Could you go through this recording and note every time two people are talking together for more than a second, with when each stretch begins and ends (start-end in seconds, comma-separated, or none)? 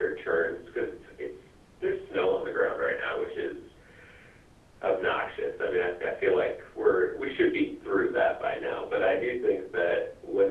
none